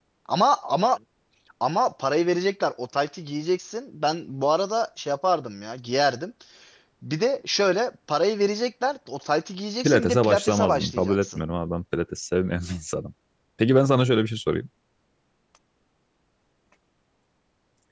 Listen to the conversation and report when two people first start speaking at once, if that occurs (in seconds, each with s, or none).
9.8 s